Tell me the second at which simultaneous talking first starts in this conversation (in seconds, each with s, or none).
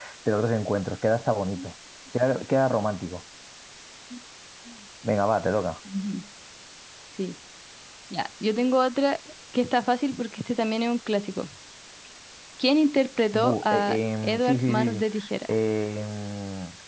13.3 s